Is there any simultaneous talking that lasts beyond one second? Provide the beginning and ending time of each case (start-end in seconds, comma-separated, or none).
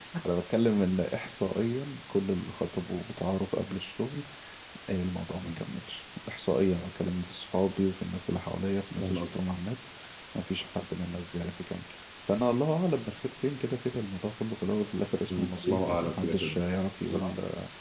15.3-16.6